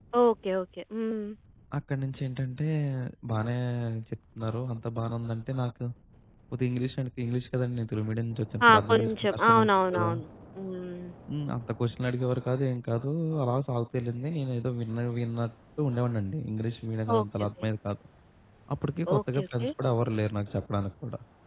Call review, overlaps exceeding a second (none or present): present